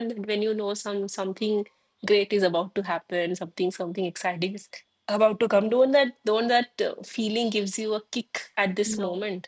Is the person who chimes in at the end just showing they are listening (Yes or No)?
No